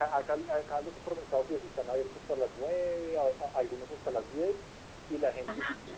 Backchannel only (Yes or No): Yes